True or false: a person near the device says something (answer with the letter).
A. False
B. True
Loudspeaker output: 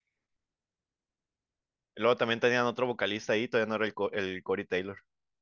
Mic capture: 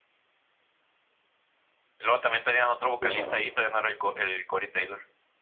B